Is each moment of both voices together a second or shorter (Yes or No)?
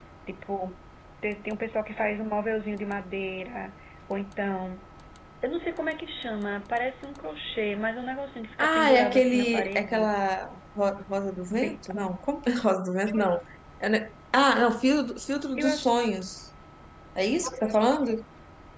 No